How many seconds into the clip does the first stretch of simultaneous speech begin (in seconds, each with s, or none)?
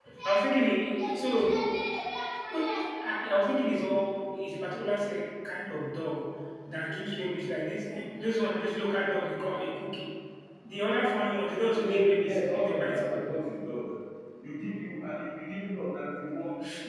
11.7 s